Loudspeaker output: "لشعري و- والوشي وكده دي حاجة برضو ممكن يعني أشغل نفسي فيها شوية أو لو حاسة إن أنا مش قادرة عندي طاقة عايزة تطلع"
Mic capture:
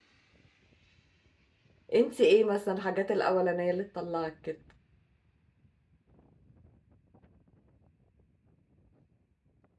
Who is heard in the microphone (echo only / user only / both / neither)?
user only